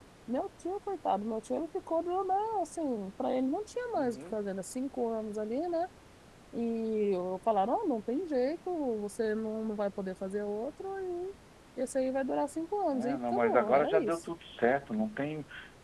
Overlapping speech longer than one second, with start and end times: 12.9-14.2

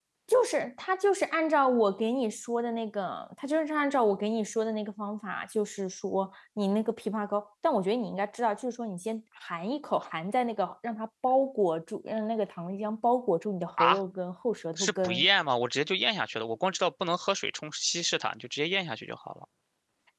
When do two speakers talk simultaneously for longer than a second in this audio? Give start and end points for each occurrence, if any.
none

